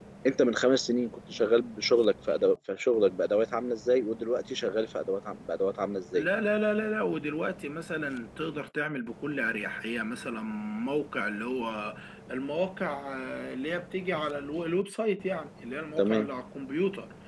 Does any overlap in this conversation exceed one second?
No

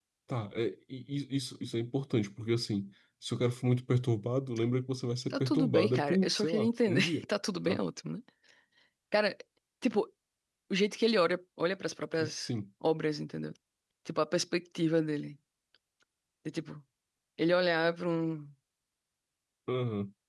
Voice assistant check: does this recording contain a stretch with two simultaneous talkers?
Yes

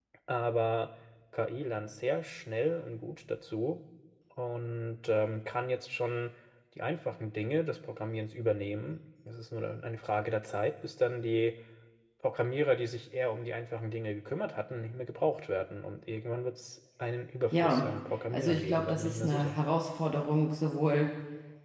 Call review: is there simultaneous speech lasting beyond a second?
Yes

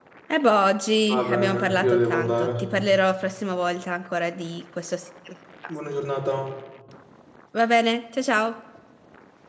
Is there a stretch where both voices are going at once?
Yes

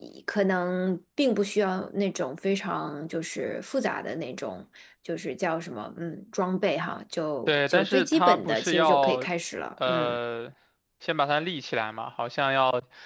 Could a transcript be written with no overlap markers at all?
No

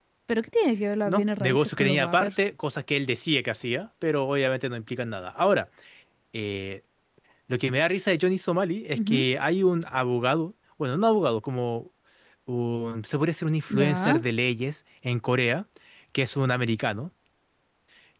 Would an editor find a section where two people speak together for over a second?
Yes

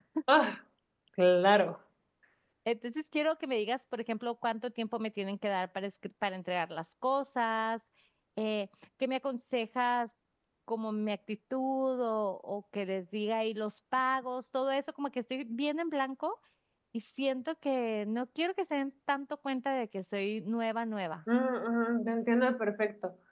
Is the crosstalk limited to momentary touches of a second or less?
Yes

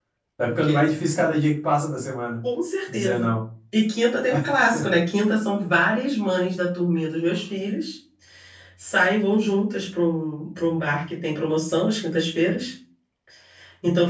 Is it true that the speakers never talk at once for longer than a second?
Yes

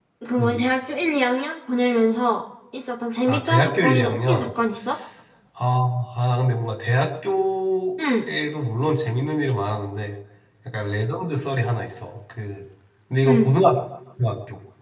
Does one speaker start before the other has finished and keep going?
Yes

